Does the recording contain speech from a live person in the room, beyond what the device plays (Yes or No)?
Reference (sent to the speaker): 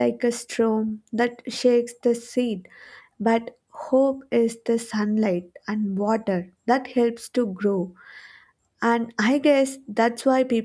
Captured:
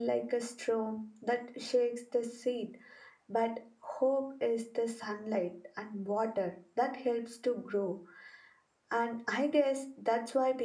No